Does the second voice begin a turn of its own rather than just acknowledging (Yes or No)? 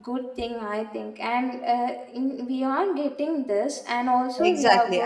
Yes